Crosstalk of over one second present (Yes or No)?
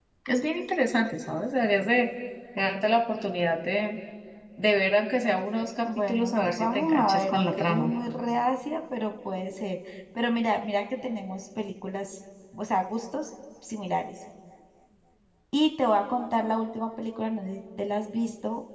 Yes